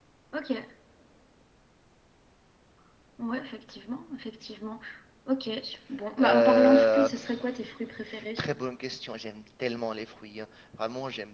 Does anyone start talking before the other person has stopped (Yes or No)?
Yes